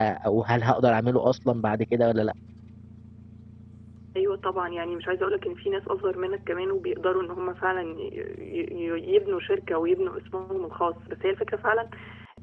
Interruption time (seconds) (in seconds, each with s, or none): none